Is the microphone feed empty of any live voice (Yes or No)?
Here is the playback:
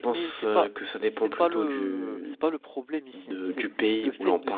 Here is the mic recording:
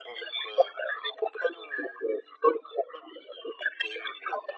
Yes